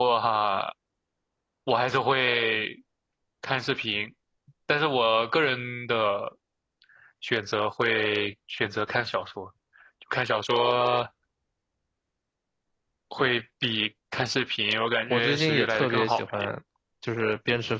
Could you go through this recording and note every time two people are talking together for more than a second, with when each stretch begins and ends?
15.1-16.5

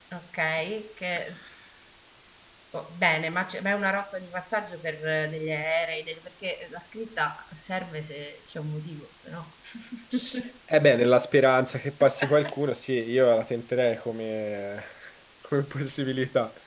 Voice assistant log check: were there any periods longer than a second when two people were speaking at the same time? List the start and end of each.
none

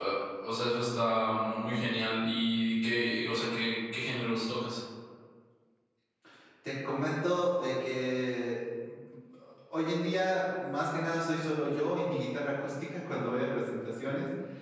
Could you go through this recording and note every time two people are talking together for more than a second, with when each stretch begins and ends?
none

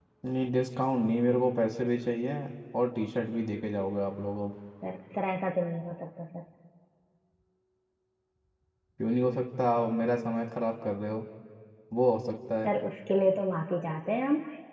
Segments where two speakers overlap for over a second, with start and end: none

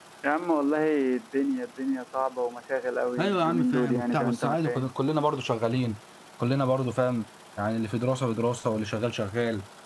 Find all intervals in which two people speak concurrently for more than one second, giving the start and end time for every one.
3.2-4.8

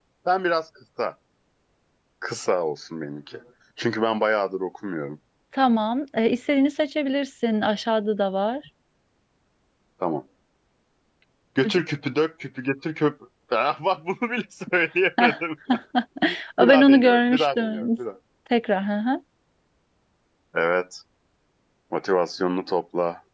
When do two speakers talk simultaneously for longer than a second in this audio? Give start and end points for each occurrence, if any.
16.6-17.9

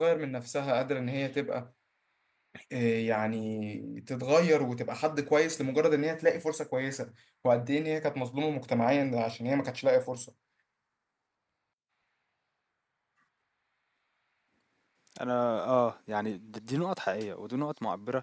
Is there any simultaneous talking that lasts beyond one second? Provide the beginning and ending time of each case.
none

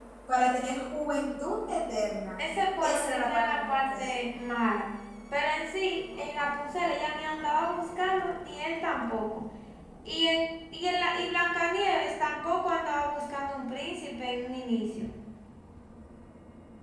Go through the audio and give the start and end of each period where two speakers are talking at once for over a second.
2.8-4.1

